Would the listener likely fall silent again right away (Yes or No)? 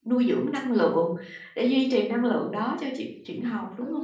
No